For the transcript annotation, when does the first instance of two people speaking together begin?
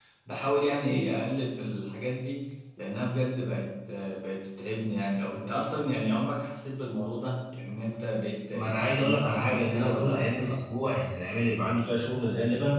8.5 s

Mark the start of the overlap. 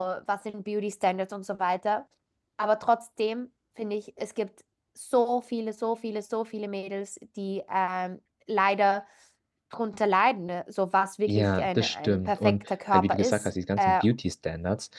11.3 s

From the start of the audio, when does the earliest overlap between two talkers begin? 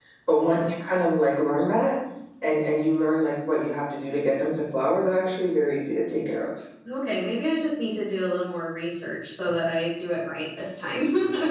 none

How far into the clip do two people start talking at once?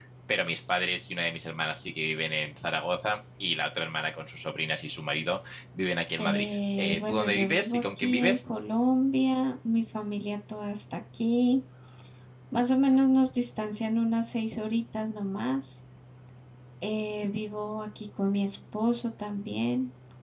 6.2 s

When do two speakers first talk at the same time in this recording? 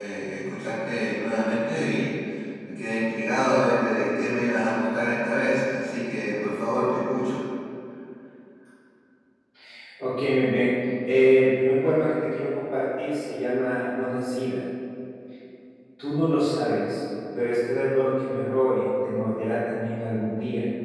none

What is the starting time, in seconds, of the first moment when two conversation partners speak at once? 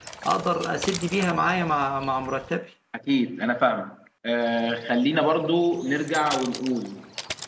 none

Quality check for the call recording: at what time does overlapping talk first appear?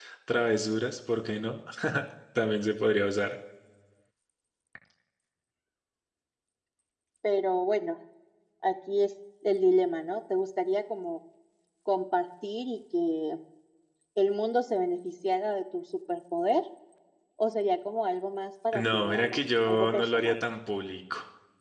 18.7 s

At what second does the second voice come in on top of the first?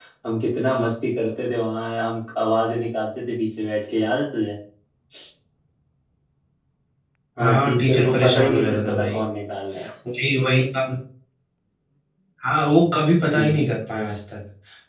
7.4 s

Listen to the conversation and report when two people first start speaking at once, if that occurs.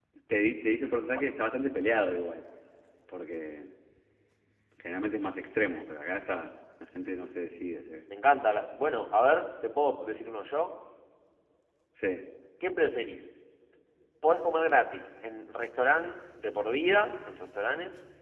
none

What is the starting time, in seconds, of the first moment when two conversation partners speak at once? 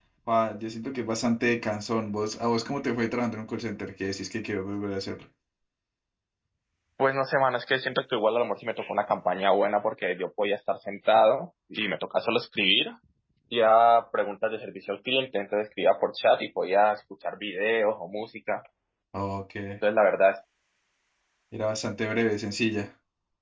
none

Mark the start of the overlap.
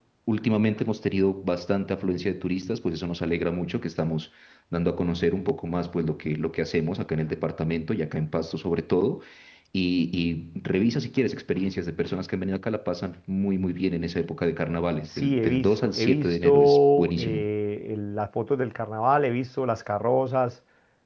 15.1 s

